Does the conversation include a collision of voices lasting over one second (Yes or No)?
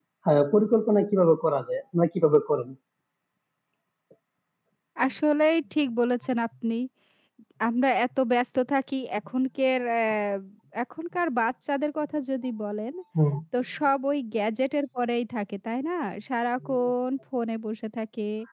No